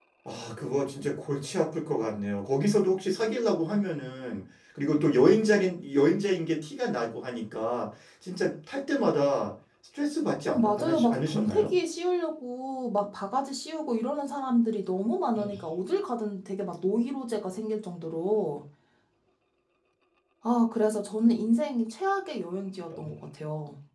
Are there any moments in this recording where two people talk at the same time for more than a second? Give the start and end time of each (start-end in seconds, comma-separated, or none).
10.4-11.7